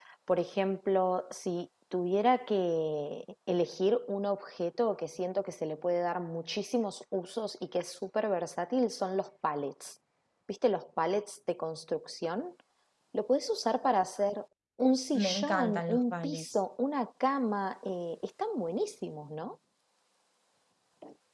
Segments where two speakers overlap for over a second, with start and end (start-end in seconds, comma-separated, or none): 15.2-16.4